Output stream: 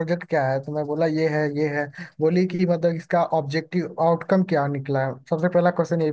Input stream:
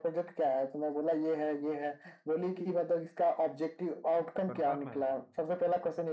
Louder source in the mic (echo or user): echo